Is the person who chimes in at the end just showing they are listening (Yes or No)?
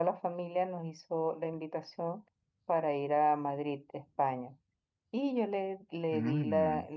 Yes